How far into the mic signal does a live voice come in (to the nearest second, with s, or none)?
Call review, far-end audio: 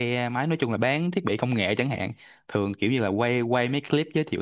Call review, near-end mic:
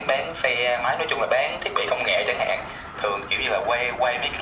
none